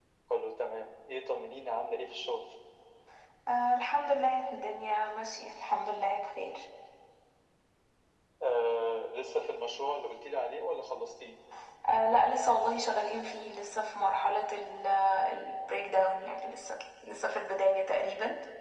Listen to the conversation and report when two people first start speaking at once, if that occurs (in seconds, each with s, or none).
none